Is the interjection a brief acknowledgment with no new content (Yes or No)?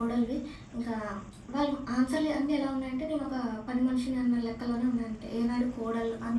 No